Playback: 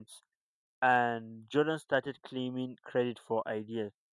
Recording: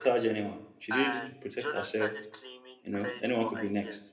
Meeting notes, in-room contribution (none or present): present